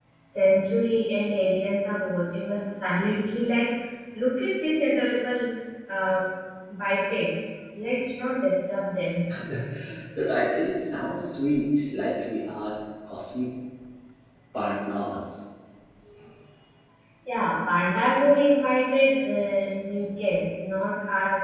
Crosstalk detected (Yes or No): No